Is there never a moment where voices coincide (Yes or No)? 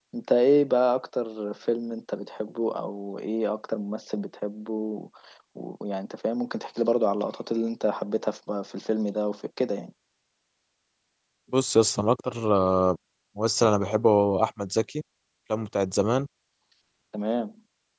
Yes